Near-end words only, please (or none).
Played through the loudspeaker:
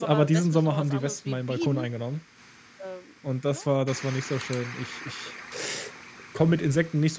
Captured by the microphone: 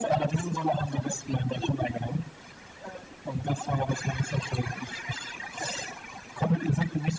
none